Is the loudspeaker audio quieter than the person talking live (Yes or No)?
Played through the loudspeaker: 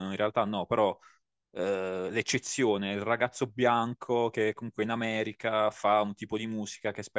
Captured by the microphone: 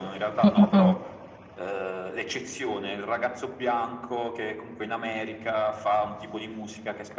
Yes